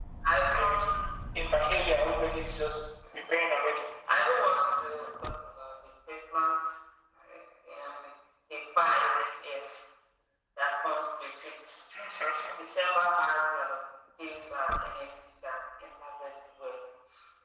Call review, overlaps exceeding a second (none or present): none